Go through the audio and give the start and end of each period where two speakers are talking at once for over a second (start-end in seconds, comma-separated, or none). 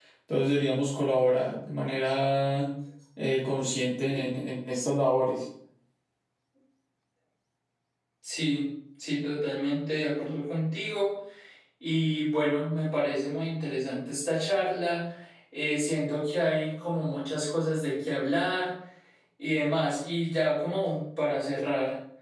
none